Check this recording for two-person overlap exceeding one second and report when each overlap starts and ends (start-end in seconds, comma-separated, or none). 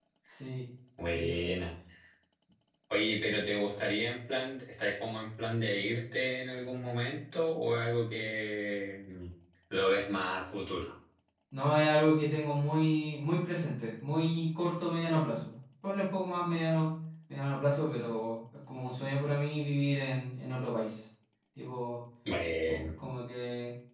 none